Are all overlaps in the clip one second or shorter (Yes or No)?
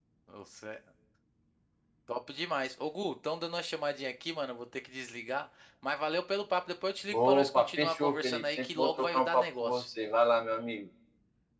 No